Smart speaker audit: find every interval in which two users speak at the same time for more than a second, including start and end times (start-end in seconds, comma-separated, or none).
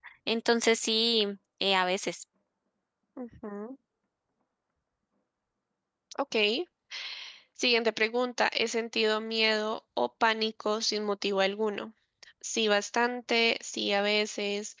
none